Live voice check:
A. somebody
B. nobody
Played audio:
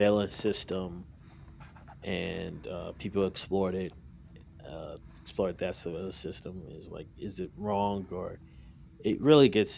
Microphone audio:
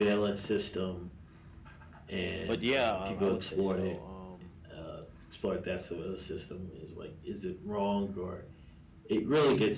A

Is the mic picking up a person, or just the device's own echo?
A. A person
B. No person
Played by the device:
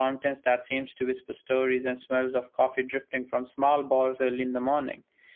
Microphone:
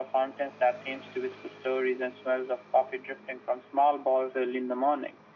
B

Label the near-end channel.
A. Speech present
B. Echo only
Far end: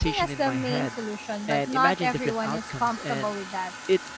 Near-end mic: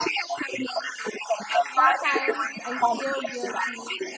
A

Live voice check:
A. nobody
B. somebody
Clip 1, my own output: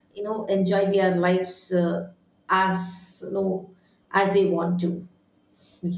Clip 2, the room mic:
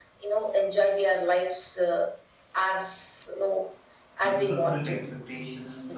B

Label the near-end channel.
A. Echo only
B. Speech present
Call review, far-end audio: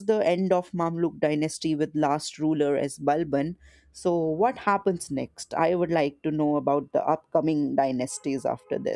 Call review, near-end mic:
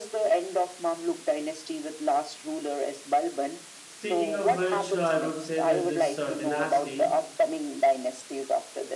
B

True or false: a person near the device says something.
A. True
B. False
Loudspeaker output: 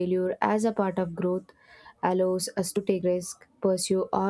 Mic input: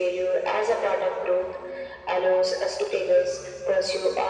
B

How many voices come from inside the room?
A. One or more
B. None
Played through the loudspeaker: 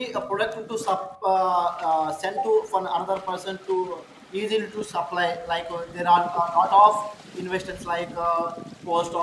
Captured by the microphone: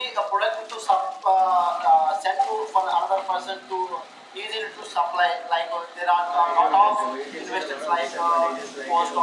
A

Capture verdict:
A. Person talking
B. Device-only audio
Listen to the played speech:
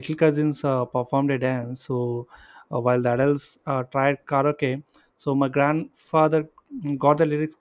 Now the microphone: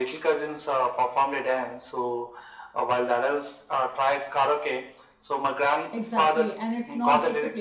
A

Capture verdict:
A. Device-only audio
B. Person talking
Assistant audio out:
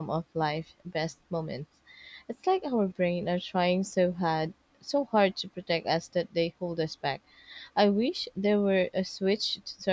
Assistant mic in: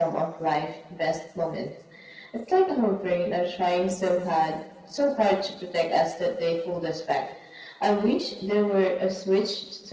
A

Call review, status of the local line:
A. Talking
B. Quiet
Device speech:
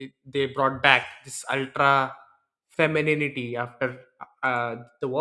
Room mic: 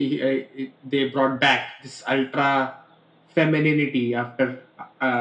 B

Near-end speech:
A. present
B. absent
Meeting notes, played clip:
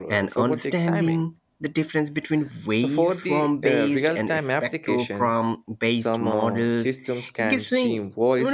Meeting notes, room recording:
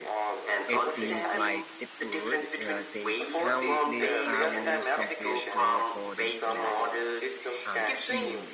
A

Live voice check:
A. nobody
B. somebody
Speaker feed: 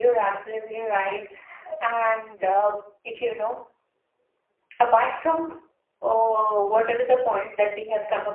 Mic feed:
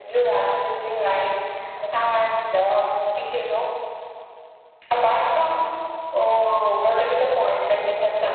A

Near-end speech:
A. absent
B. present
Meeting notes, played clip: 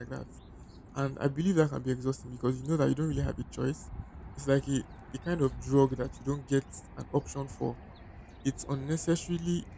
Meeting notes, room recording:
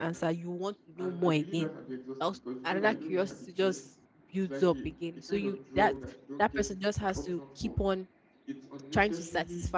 B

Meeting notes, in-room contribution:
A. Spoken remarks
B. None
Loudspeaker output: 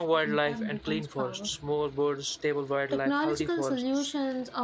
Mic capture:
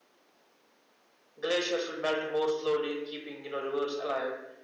A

